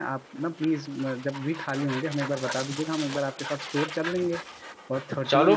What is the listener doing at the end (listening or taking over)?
taking over